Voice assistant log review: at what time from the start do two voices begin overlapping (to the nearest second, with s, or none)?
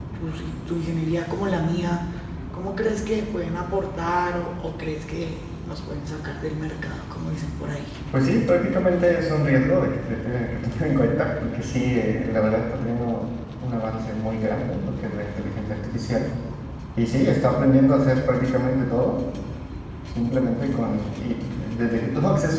none